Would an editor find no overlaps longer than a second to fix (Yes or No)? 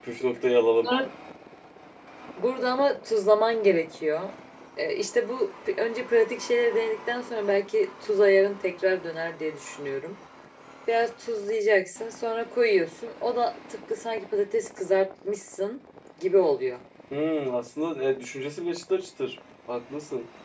Yes